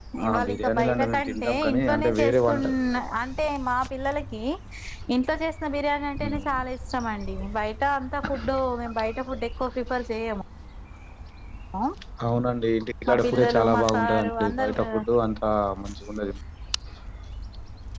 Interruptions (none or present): present